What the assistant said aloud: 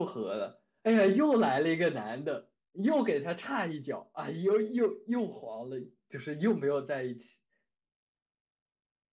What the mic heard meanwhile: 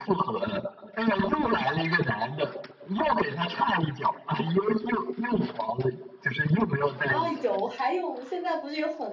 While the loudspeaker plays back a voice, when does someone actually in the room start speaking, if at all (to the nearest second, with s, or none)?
7 s